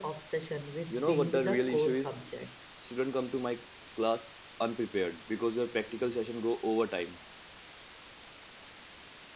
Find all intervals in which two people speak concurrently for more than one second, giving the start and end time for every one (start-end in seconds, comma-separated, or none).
0.9-2.1